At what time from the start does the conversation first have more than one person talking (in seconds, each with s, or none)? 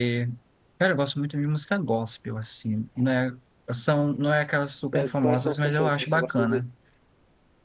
4.9 s